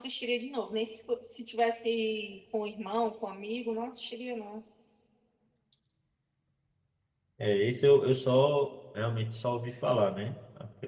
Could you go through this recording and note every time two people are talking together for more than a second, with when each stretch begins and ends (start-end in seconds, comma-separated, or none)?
none